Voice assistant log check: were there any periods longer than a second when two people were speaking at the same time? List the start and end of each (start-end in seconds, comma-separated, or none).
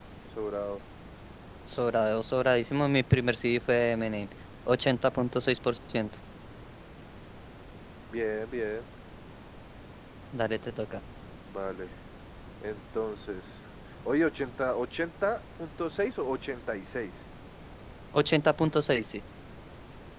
none